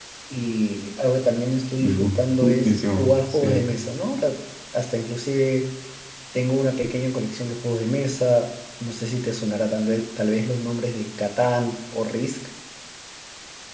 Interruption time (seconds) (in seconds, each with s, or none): 1.8 s